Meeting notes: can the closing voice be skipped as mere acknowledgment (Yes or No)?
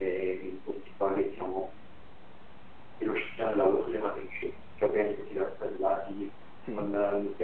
Yes